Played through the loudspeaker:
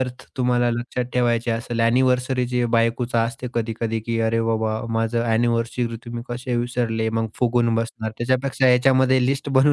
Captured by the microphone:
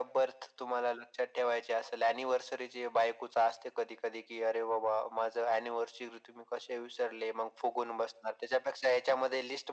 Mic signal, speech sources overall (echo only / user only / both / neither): echo only